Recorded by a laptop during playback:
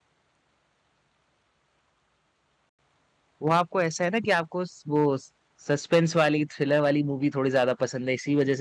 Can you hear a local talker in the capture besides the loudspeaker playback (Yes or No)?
Yes